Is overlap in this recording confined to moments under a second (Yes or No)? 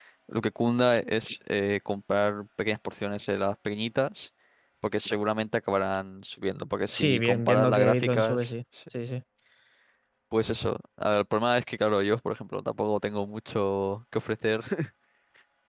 No